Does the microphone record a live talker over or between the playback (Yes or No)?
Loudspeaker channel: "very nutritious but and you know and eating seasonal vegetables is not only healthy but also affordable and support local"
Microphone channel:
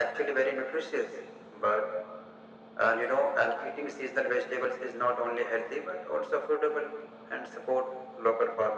No